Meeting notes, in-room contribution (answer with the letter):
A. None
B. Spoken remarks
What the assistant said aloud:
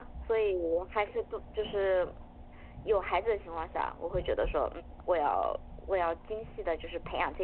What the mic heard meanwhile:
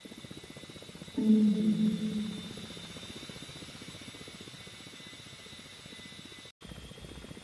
B